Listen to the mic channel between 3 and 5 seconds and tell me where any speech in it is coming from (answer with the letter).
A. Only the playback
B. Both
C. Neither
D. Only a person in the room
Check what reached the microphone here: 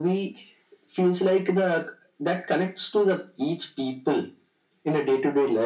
A